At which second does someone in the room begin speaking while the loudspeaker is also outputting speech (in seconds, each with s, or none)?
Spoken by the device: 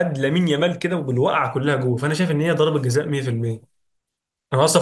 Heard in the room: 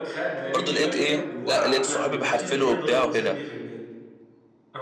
0.5 s